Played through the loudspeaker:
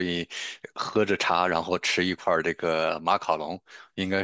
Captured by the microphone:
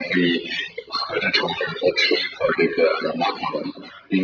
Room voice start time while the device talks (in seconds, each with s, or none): none